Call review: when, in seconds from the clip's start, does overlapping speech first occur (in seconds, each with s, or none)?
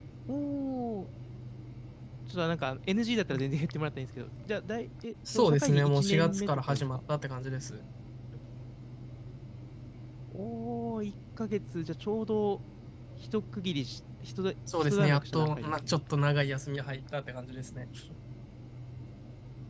5.3 s